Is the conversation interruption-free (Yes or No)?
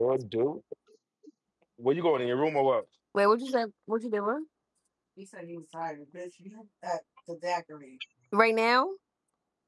Yes